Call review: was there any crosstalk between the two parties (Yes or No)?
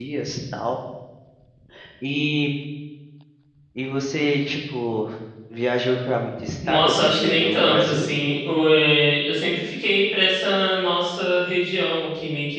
Yes